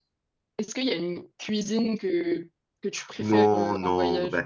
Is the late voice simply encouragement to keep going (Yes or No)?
No